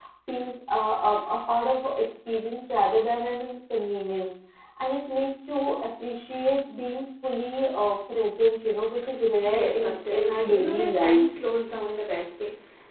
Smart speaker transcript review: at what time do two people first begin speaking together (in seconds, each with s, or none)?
9.4 s